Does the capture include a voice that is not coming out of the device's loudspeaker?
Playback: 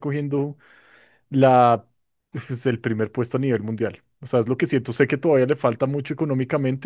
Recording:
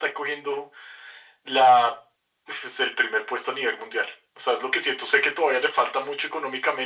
No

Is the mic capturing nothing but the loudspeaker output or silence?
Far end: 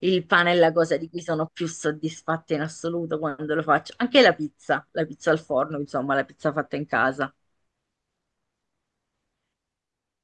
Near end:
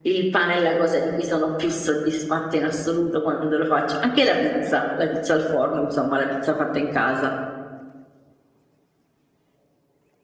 Yes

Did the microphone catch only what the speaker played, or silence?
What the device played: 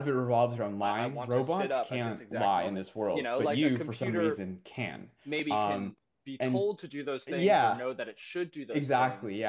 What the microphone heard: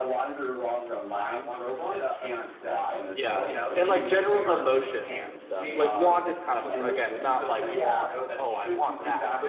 No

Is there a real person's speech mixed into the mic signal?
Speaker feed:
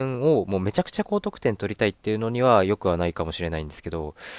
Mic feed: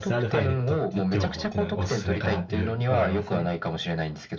Yes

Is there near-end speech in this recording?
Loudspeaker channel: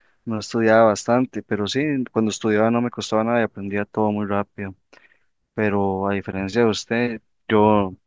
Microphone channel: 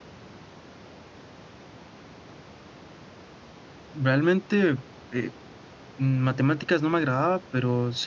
Yes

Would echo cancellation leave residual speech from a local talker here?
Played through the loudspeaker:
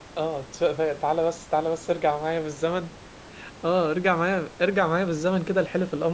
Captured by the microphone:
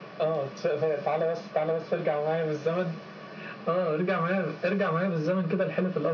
No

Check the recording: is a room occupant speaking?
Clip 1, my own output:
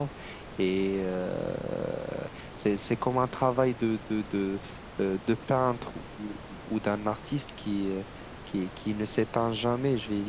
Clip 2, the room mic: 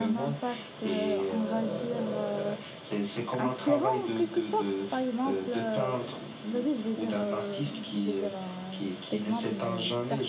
Yes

